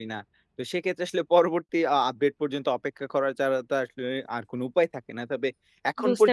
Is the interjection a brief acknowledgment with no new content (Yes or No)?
No